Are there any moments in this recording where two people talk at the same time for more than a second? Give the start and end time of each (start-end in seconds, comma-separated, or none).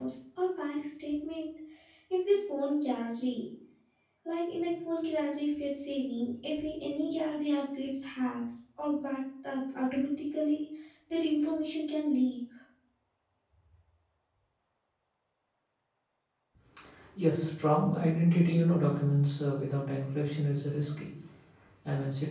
none